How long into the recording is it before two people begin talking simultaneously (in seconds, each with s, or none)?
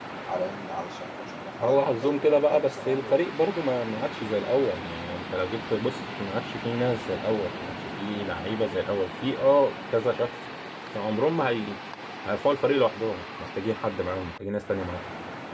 1.6 s